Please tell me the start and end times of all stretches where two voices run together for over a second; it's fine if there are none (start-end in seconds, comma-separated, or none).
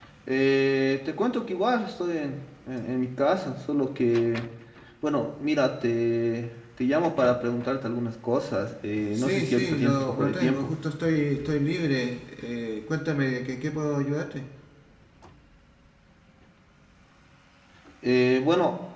9.1-10.7